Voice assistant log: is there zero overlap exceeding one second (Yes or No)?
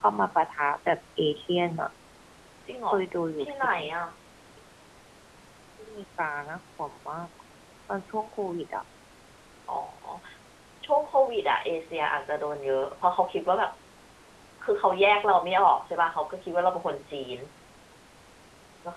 Yes